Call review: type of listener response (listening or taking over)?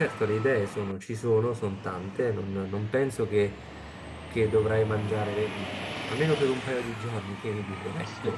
taking over